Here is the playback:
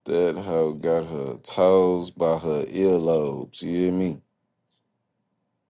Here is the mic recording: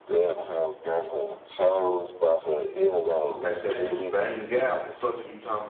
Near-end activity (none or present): present